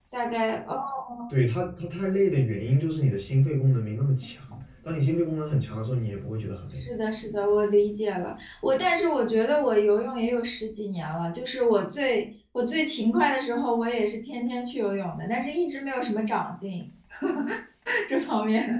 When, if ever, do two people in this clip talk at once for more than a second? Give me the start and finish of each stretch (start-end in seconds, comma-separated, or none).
none